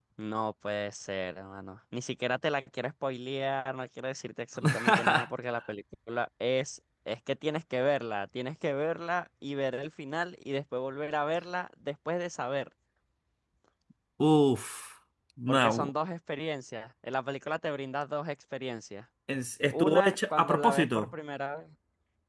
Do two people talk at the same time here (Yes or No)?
Yes